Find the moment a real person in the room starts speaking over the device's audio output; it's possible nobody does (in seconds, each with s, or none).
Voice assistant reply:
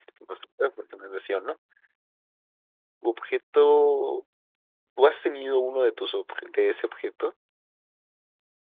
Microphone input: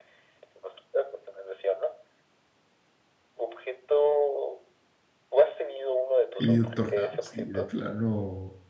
6.4 s